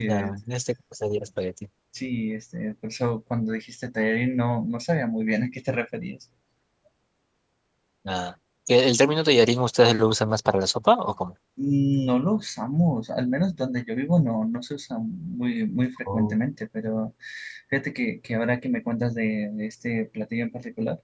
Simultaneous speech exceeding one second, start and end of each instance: none

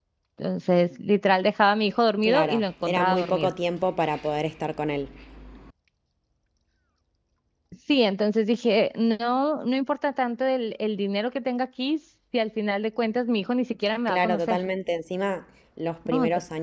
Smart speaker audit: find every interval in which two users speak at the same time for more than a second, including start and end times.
2.2-3.5

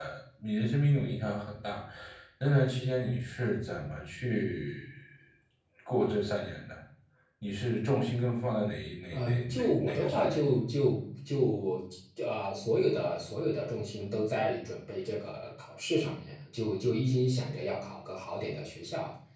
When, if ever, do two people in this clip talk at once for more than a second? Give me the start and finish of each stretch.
9.1-10.4

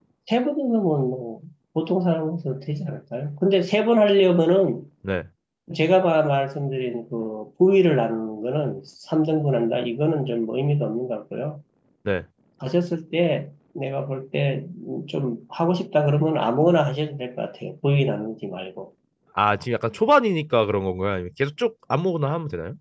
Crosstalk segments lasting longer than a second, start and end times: none

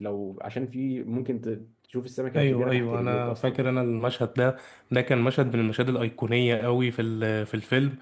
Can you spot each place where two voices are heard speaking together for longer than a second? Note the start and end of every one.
2.4-3.6

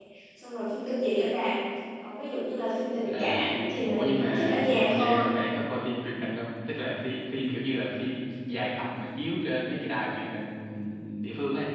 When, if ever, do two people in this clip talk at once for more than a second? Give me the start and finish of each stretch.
3.9-5.4

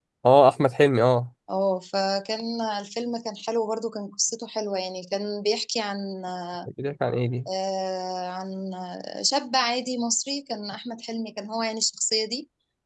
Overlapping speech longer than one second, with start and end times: none

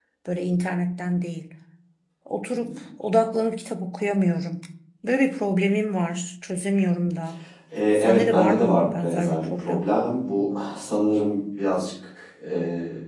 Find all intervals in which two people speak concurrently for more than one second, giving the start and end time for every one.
8.0-9.8

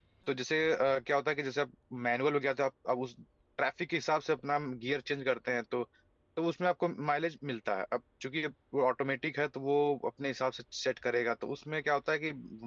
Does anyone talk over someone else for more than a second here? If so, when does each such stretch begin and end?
none

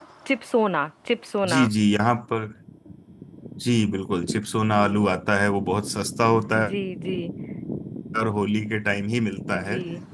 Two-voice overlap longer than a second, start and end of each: none

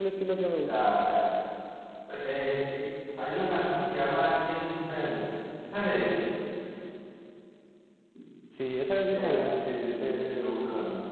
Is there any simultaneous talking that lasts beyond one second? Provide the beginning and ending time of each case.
9.0-10.6

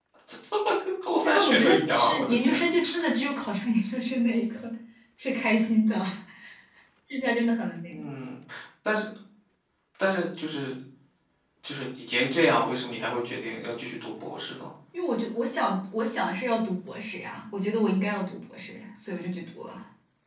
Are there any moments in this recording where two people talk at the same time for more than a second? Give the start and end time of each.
1.2-2.6

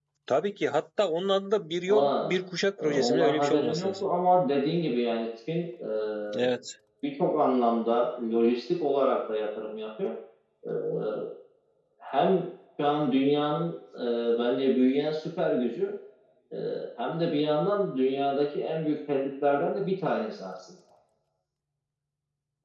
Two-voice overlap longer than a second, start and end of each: 2.8-4.0

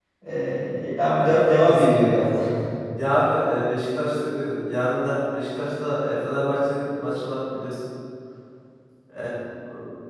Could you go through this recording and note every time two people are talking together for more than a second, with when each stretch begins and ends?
1.1-2.4

